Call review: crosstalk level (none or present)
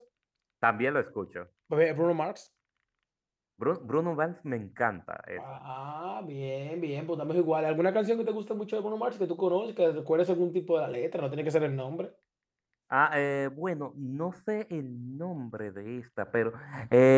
none